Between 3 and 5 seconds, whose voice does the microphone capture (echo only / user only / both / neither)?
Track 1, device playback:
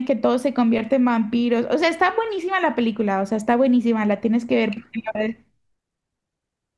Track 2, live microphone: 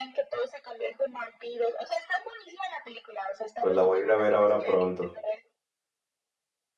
both